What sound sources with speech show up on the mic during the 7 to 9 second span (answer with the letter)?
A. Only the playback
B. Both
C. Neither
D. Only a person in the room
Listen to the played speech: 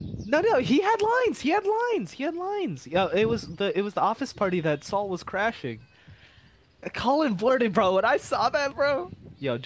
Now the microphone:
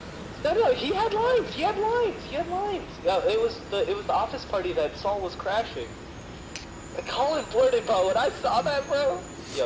A